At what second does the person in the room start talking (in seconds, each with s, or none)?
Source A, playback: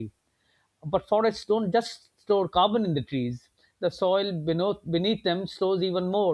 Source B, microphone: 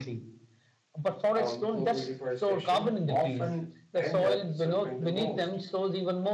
1.3 s